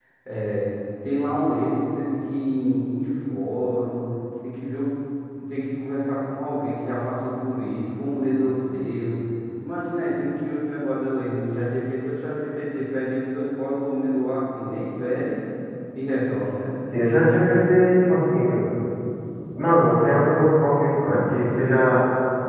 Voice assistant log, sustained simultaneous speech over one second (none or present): none